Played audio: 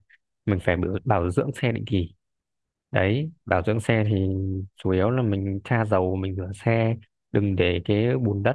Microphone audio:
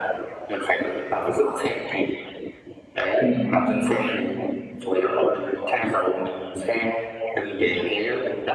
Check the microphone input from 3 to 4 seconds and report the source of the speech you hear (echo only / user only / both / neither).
both